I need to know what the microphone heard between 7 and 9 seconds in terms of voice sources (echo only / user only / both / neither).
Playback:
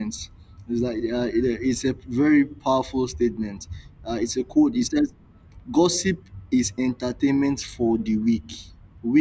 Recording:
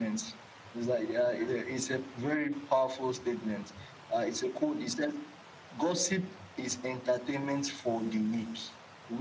echo only